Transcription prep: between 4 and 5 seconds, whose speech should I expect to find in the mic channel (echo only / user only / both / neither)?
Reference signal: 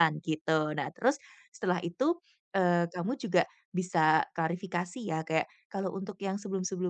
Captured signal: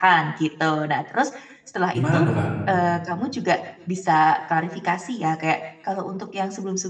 echo only